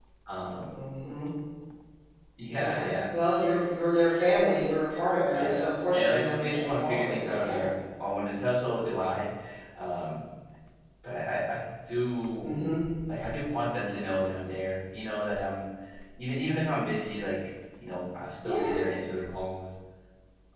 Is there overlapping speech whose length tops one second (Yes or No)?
Yes